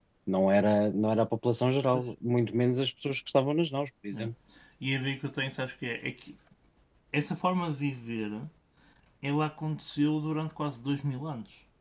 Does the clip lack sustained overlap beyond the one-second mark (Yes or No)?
Yes